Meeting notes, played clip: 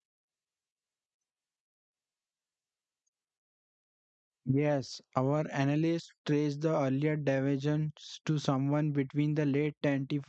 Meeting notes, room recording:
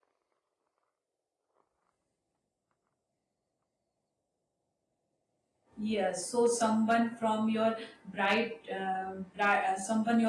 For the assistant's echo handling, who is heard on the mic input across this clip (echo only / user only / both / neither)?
user only